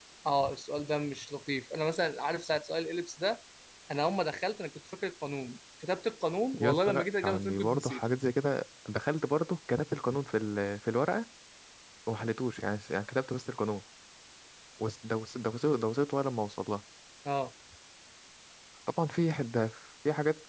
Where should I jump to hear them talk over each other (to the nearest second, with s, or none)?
7 s